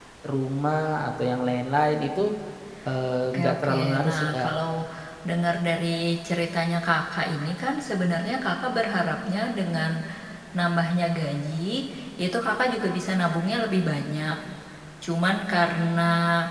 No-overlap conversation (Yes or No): No